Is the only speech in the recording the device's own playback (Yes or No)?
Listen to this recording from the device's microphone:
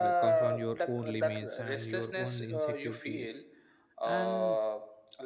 No